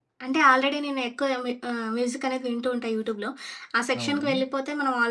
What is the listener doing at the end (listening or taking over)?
listening